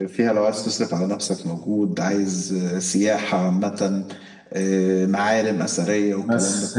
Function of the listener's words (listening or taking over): taking over